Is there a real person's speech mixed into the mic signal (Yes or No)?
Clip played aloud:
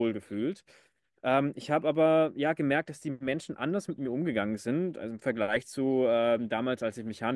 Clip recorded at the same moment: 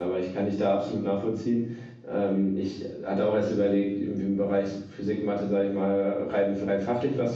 Yes